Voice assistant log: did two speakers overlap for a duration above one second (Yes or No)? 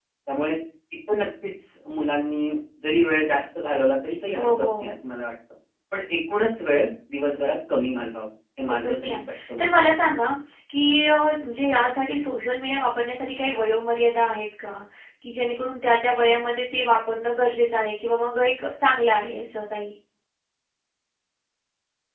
Yes